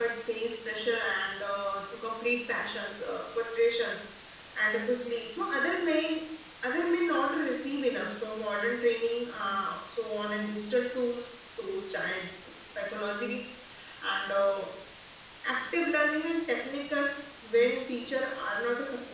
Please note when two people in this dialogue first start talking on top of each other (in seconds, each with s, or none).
none